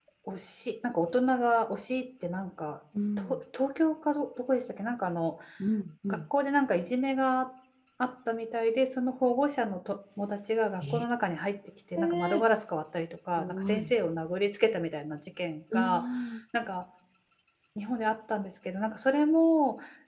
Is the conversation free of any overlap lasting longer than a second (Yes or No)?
Yes